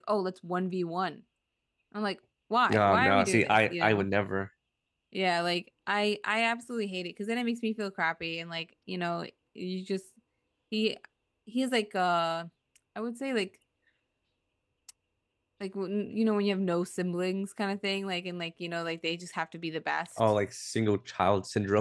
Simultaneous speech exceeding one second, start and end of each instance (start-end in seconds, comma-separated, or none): 2.7-4.1